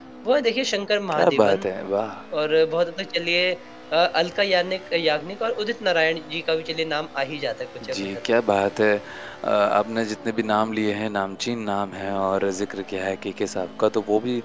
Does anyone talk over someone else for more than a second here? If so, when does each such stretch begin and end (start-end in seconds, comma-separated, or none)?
none